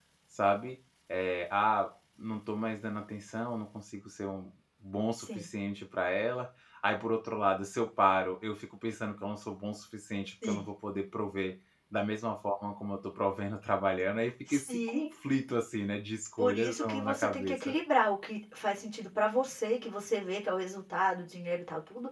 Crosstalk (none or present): present